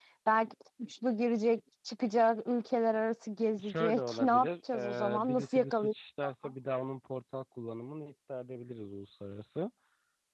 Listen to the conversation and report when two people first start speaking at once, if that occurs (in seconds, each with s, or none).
3.5 s